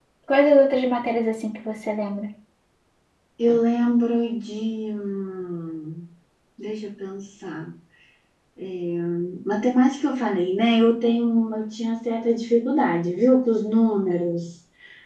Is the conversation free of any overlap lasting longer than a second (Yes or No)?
Yes